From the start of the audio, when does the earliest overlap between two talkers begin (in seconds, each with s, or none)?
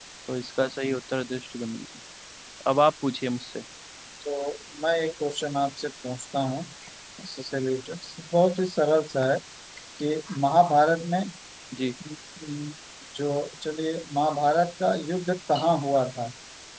none